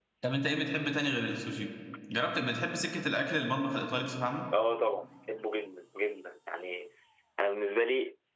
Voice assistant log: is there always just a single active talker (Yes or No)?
Yes